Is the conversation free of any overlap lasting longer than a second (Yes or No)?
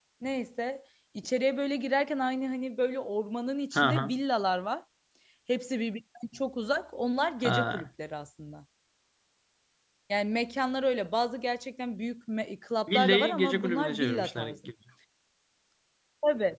No